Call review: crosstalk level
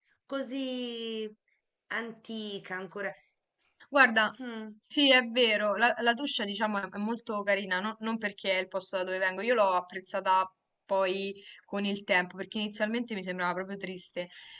none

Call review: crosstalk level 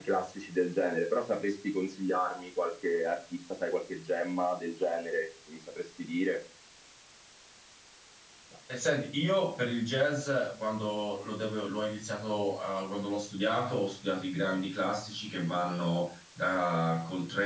none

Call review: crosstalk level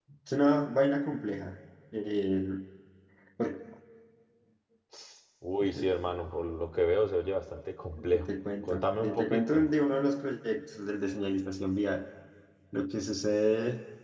present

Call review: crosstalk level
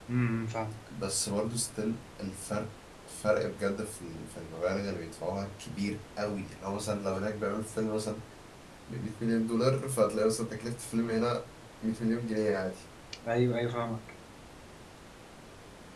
none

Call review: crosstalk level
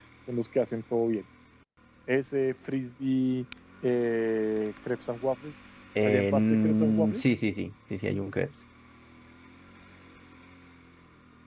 present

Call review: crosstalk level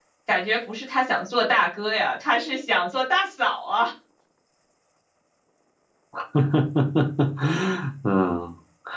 none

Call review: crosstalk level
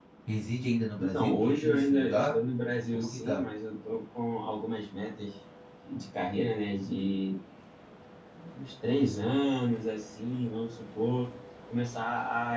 present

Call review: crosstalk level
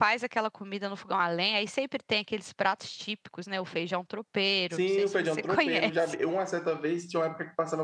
present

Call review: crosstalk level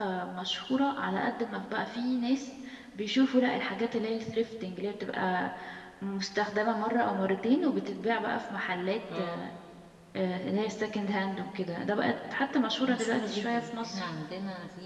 present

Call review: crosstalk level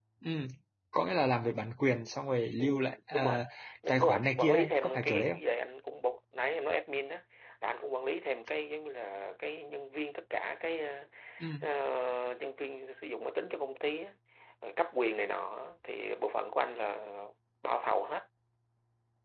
present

